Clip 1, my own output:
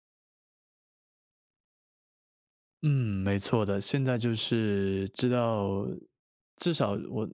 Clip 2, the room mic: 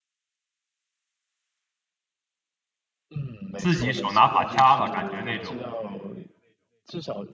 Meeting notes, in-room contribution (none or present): present